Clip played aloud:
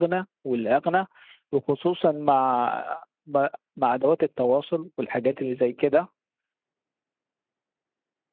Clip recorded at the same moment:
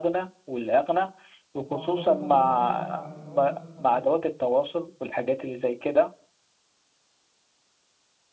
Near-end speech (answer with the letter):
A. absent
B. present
B